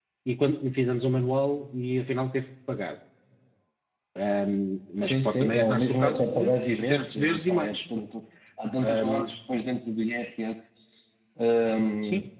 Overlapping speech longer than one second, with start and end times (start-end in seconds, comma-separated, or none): 5.0-7.8